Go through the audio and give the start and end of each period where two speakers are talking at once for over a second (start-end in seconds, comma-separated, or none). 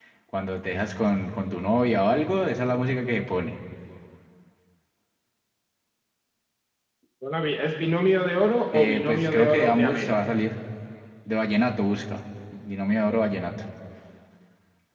8.7-10.4